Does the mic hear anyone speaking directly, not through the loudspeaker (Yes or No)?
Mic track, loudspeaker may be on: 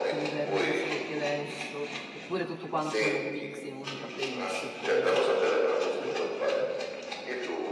Yes